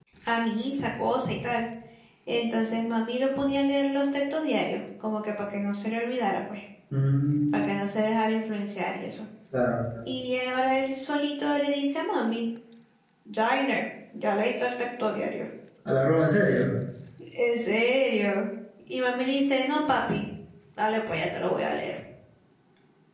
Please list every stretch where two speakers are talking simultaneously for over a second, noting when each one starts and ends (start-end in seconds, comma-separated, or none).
none